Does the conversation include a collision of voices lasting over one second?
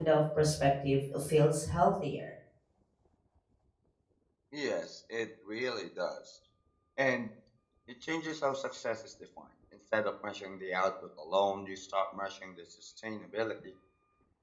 No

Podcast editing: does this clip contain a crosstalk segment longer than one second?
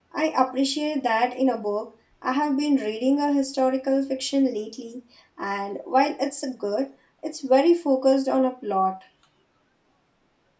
No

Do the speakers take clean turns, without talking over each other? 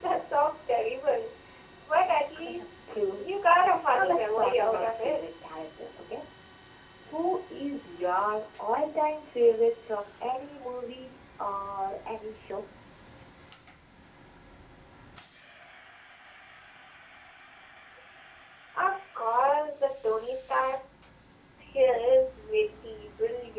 No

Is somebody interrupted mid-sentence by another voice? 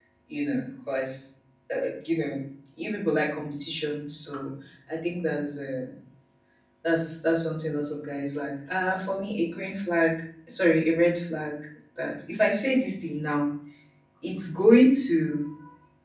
No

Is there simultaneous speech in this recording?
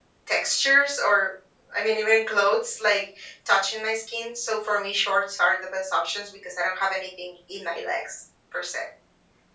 No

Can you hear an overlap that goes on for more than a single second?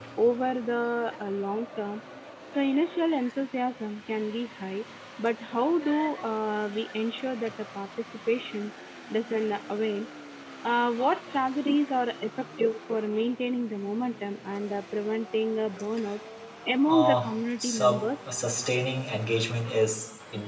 Yes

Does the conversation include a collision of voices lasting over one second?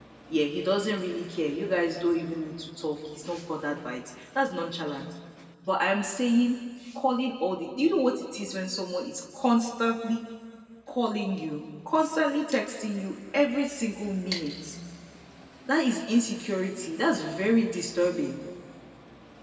No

